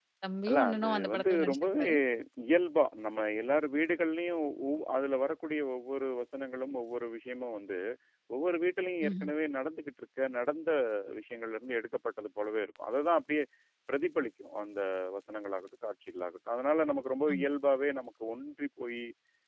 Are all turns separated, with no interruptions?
No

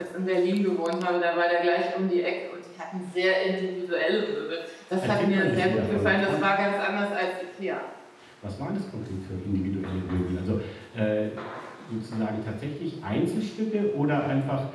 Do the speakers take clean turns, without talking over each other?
No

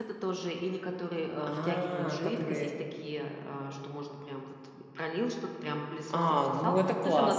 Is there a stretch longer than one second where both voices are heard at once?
Yes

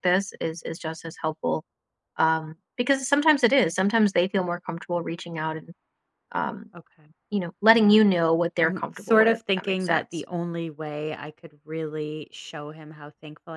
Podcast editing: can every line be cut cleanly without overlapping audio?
No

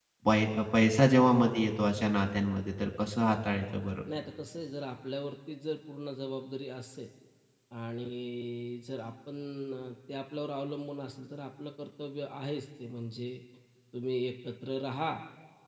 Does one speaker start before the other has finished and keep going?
No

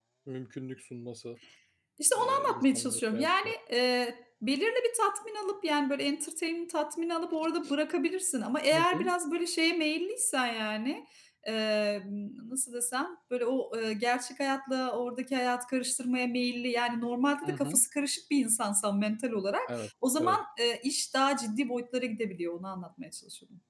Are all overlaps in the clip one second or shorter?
No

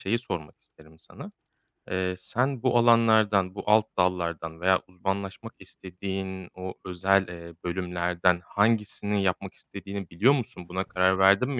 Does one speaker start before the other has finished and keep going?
No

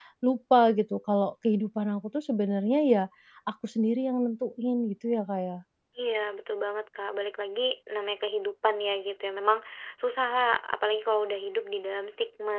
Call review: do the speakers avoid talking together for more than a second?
Yes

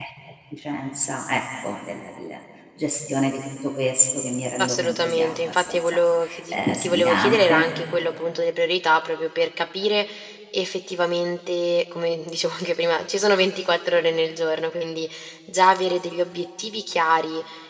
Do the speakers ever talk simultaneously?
Yes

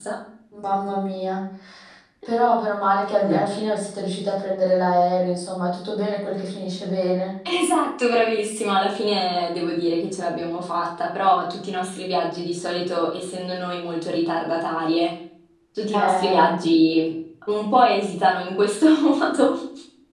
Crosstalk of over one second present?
No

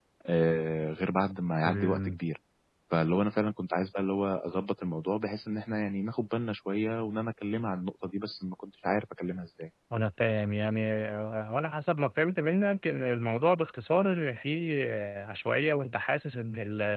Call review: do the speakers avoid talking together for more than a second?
Yes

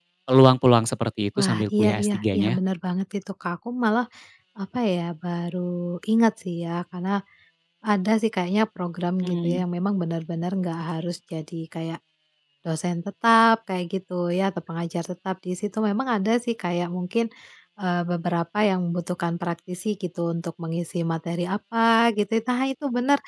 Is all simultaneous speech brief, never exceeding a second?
No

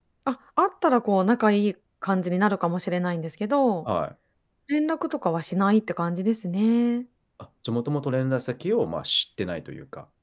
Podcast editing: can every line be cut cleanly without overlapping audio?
Yes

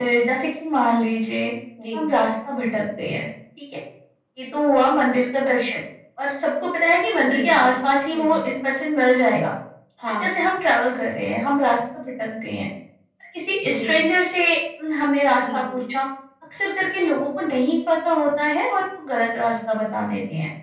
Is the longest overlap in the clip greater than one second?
No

